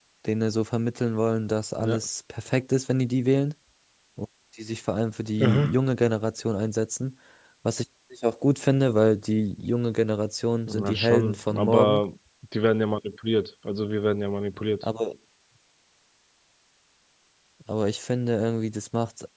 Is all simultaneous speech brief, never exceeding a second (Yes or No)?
No